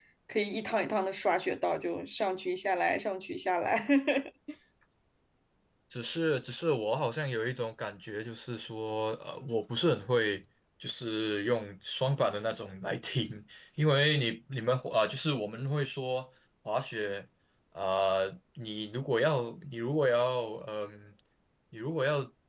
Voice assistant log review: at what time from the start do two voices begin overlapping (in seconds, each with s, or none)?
none